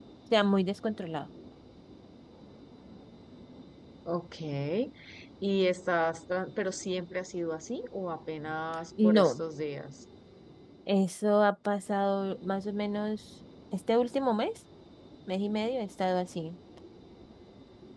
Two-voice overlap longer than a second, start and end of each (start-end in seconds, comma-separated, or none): none